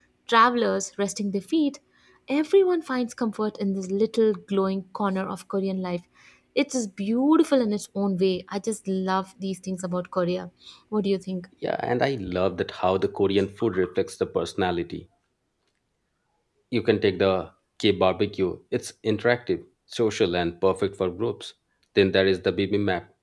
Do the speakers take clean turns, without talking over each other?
Yes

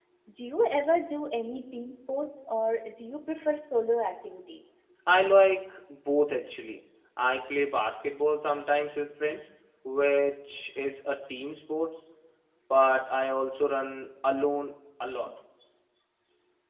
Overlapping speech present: No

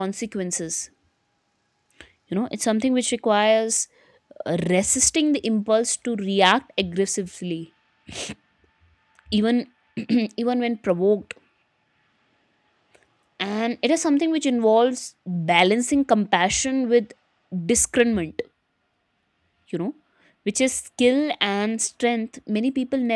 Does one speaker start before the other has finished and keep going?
No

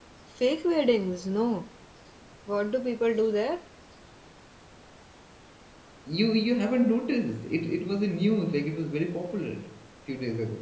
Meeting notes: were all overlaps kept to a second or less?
Yes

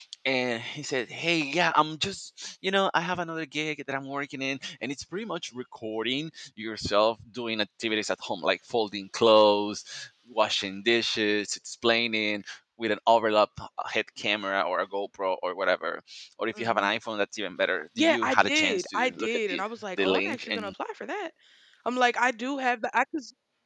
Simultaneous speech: Yes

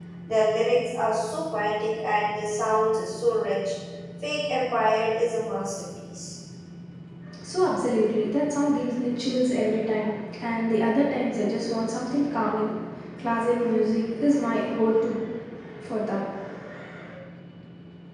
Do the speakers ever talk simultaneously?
No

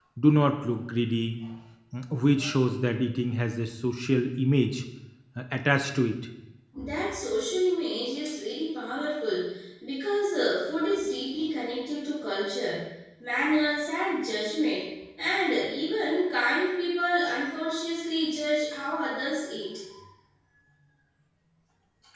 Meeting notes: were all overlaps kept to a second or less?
Yes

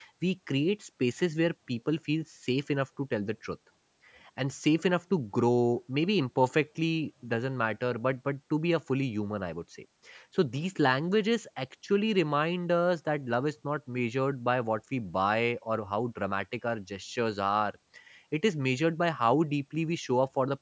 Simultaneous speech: No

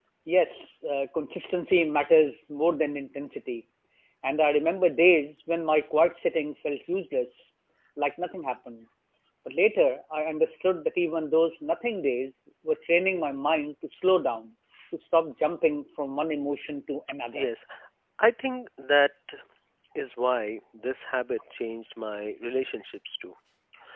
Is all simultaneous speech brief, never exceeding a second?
Yes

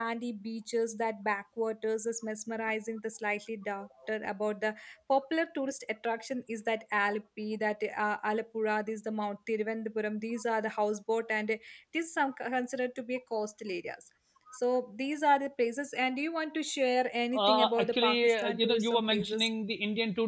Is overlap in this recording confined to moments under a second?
No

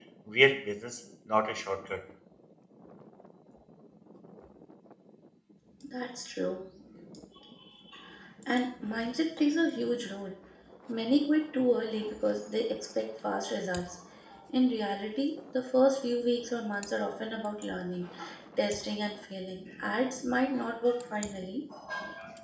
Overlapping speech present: No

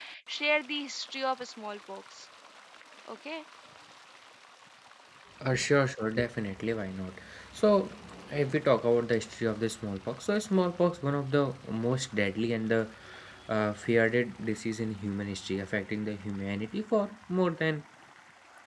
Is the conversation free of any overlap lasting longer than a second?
Yes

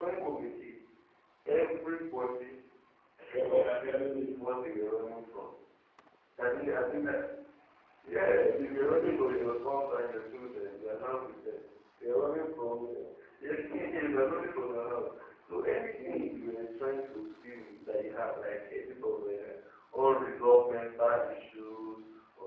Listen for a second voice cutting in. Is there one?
Yes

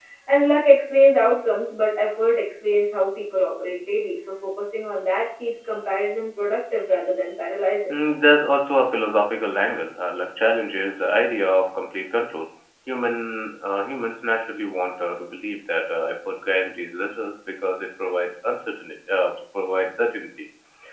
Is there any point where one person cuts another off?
No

